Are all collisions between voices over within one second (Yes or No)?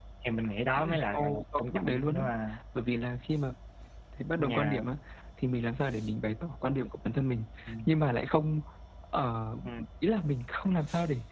No